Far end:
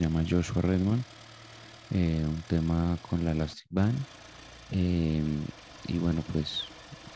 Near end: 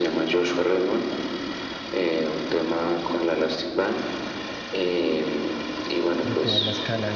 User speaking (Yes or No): Yes